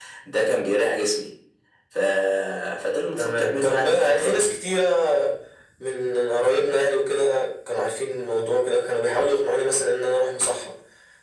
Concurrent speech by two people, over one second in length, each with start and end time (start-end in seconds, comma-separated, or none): 3.2-4.5